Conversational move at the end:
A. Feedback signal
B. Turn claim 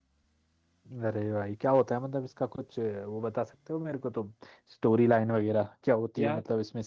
A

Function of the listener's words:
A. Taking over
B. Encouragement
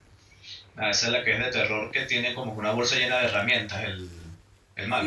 A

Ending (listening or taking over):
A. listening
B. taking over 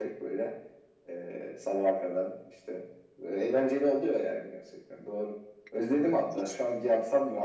A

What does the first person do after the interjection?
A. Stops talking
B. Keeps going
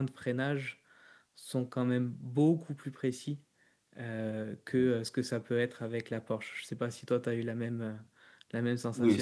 A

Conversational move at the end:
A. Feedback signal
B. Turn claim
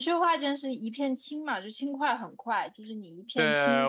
B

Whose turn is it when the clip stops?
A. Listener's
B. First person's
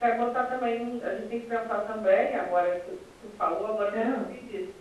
B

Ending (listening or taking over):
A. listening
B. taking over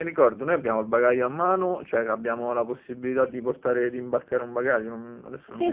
B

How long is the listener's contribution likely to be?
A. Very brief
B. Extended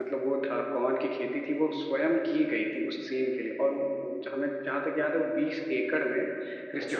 A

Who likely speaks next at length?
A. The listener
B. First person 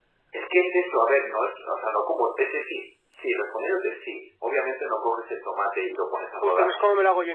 A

